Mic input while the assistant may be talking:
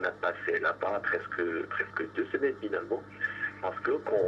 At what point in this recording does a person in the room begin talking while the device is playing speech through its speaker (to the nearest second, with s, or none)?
none